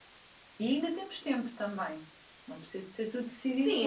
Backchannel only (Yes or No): No